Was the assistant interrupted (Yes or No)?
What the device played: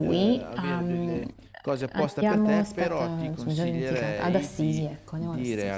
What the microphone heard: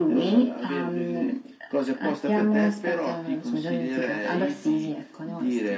No